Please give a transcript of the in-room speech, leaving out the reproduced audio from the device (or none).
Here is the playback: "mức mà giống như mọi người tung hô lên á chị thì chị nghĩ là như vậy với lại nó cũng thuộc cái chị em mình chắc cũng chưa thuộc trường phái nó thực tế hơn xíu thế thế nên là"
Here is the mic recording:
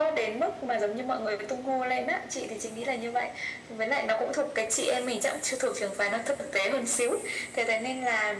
none